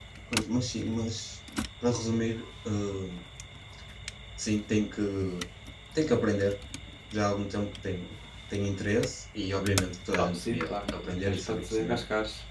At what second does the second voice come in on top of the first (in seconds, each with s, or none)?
10.2 s